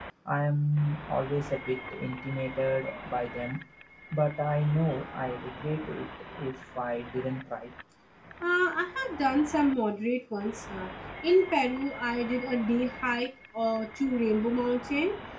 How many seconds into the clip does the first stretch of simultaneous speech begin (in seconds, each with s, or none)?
none